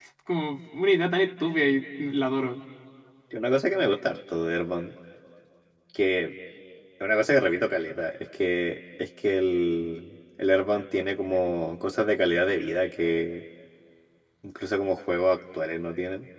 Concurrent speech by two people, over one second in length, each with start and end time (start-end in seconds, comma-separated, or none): none